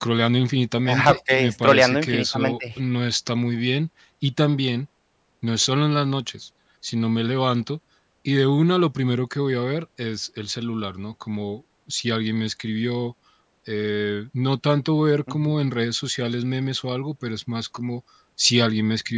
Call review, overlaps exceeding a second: present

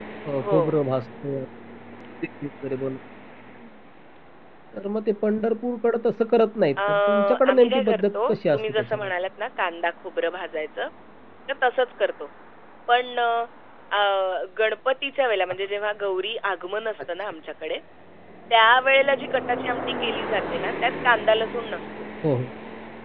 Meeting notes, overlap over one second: present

